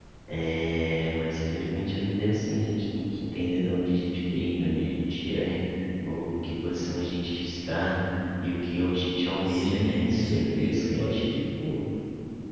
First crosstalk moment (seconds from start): 9.4 s

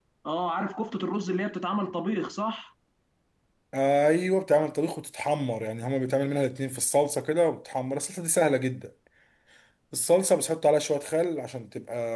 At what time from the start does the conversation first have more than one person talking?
none

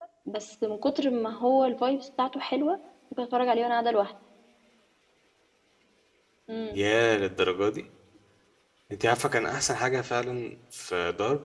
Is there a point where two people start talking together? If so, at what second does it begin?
none

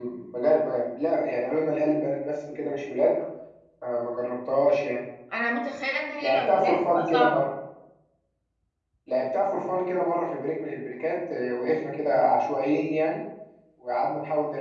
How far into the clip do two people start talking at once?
6.2 s

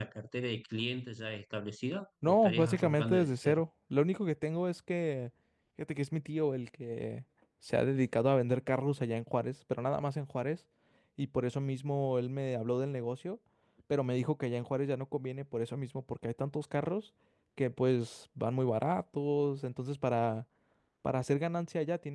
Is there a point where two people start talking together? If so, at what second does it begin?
2.2 s

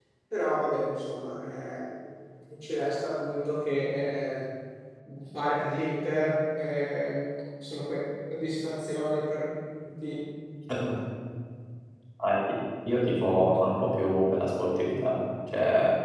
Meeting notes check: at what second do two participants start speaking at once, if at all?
none

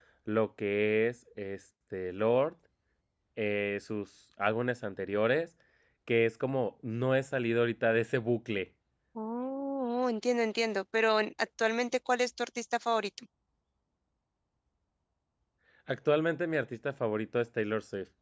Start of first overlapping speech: none

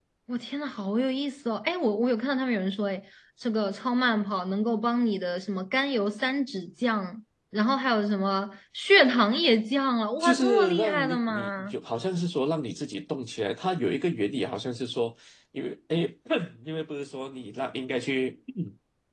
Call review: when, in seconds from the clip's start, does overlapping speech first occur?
10.2 s

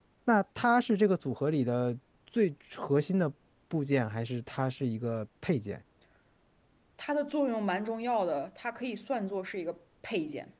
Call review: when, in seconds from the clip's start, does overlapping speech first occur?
none

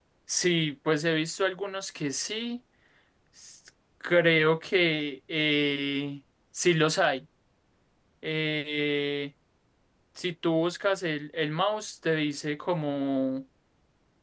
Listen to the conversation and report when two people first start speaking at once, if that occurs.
none

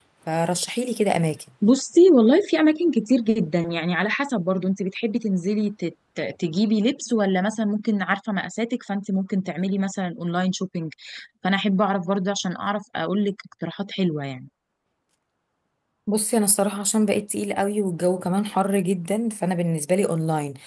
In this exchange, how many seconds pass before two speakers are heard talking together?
none

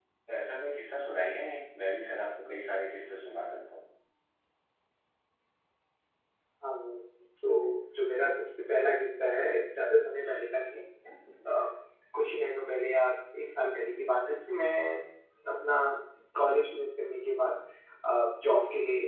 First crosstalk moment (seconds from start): none

